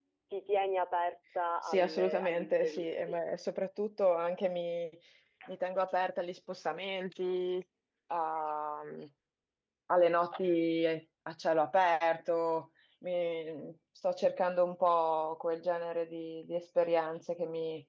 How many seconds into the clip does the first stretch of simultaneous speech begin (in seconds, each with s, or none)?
1.6 s